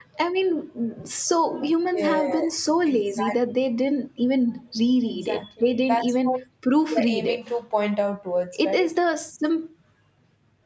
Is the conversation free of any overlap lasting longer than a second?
No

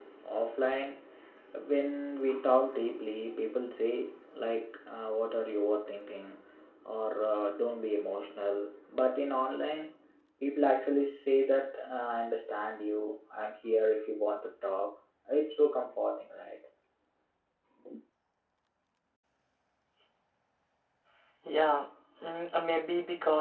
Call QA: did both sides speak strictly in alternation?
Yes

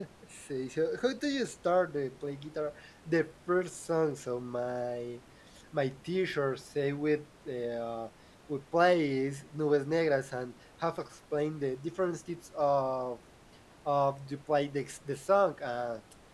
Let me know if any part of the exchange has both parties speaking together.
No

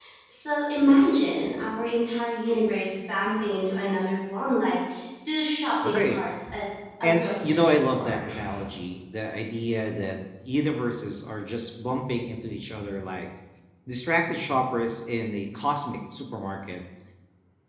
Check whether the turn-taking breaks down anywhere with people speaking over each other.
Yes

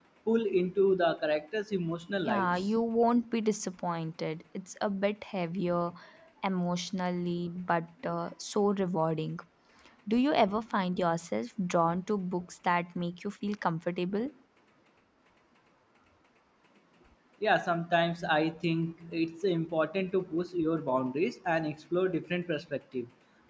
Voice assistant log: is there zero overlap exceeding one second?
Yes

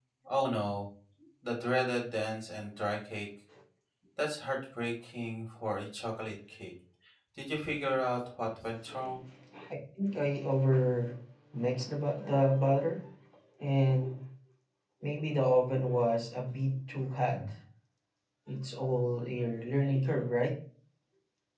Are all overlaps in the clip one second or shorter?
Yes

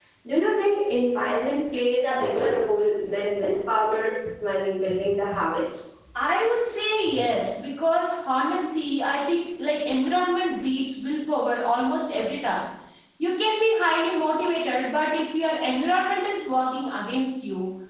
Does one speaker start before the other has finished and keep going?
No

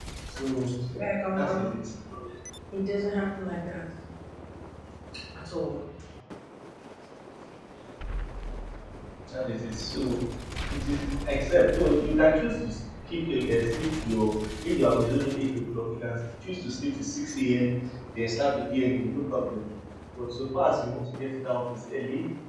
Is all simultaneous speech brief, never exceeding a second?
Yes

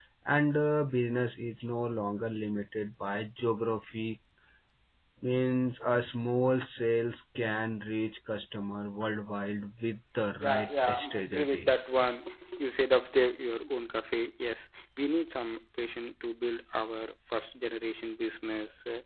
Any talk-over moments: Yes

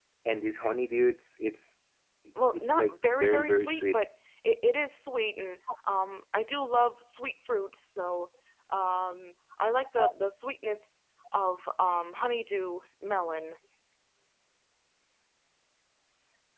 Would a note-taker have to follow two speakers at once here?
Yes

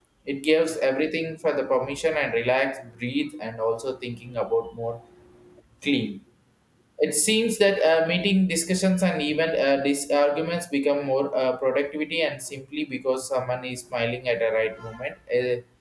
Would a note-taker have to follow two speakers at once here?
No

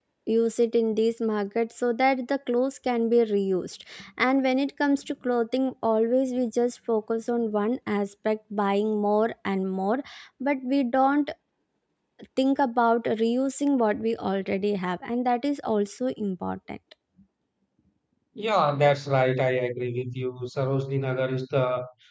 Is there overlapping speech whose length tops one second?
No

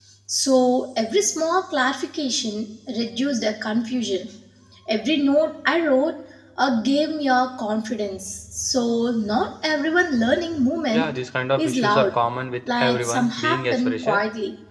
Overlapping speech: Yes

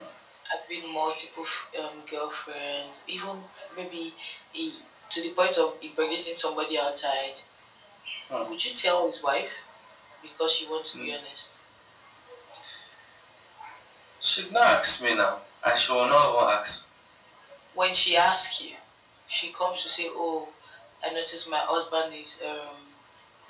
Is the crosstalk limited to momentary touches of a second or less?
Yes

